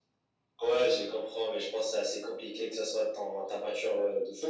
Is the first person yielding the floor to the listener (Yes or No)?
Yes